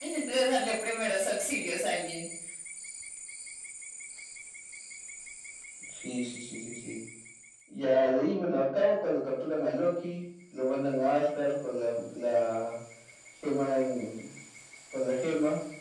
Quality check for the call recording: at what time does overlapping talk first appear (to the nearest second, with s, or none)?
none